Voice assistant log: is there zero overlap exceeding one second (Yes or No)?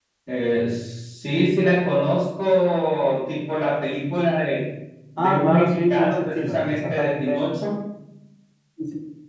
No